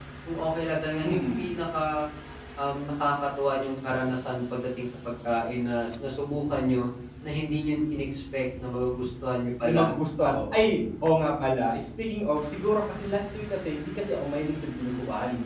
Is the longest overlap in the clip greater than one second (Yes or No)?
No